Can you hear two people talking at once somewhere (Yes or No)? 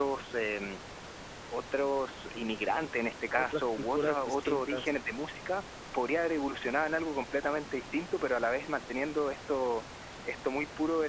Yes